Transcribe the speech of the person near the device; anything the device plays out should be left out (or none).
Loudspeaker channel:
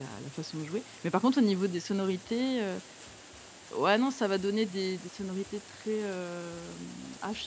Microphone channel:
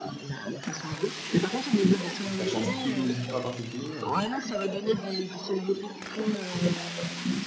Tu cherches un style musical en particulier, heu?